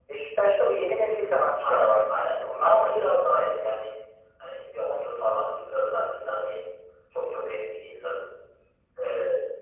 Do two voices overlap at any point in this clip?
Yes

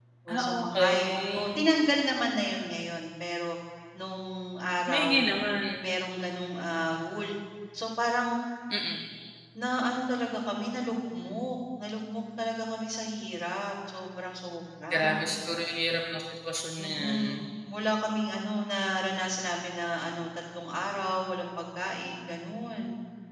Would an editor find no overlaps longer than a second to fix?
No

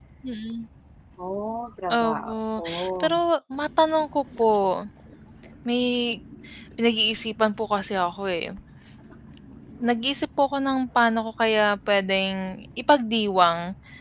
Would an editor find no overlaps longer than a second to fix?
No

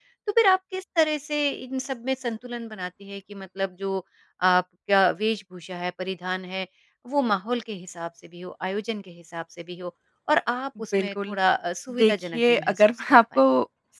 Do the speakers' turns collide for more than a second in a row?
Yes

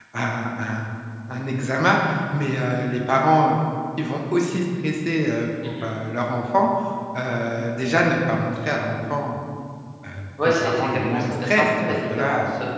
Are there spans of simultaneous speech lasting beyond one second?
Yes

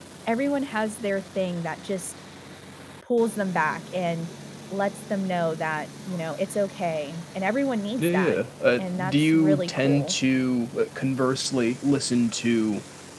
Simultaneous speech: Yes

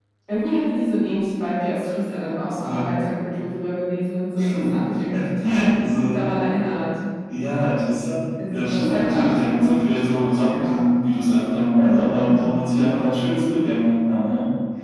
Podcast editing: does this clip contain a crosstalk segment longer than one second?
Yes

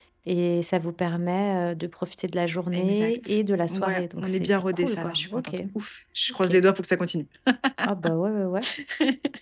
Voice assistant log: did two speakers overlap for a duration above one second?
Yes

